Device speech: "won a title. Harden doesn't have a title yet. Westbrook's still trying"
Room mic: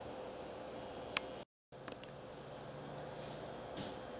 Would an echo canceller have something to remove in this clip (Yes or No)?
No